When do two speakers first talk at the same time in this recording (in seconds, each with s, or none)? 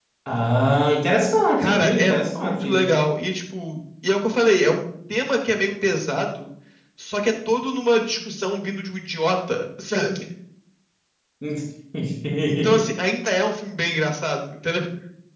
1.6 s